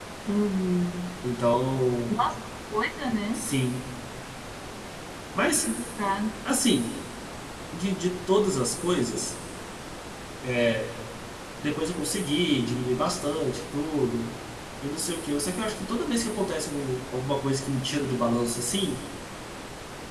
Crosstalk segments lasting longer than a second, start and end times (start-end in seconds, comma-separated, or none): none